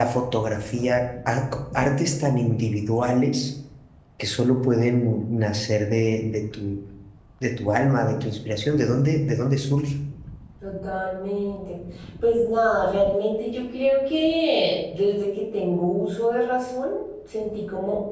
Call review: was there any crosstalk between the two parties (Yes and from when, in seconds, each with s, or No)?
No